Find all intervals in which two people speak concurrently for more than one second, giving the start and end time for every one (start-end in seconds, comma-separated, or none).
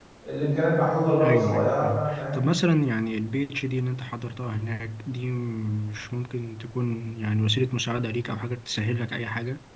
1.2-2.5